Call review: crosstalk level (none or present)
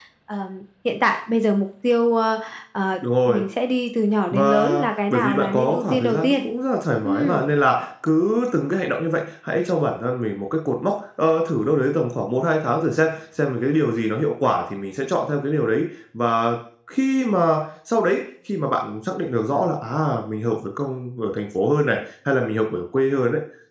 present